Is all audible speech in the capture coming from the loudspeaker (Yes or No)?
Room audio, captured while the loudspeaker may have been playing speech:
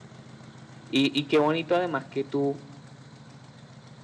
No